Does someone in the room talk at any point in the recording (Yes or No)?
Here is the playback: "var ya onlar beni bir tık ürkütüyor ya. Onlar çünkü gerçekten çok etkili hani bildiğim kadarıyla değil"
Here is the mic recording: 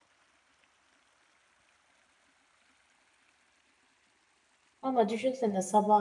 Yes